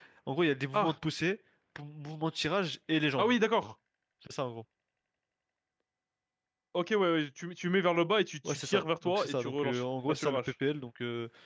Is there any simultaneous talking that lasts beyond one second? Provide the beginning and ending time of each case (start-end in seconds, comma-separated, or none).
8.4-10.4